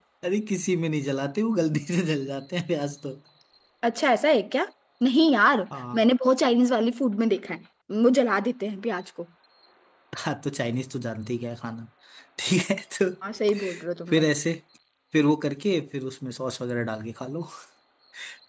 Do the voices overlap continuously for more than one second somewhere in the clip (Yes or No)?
No